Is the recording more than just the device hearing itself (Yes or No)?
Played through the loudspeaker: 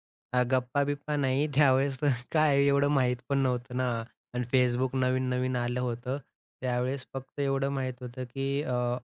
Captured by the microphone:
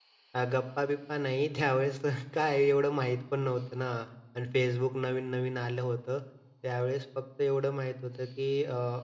No